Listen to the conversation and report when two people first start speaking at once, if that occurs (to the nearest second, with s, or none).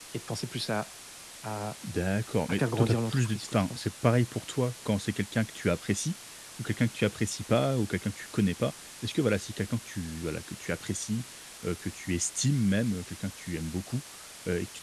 2 s